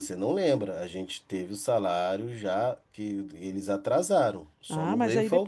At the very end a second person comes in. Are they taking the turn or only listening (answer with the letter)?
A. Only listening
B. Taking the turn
B